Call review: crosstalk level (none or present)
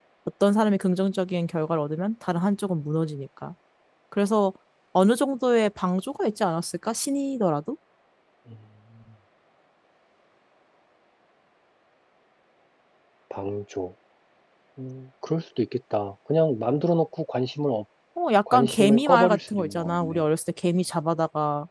present